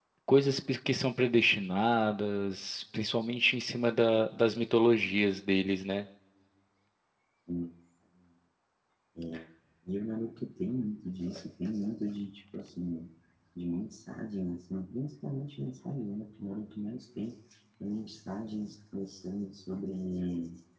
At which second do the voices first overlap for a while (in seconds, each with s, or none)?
none